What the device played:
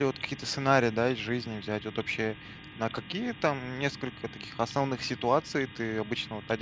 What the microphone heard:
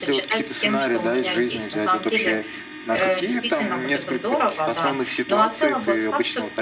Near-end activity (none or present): present